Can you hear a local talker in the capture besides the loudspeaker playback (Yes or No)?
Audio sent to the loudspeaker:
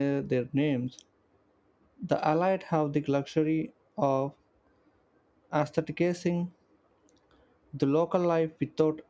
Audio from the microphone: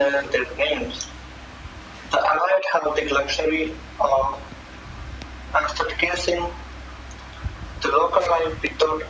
No